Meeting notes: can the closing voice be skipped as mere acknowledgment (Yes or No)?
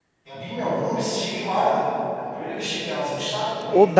No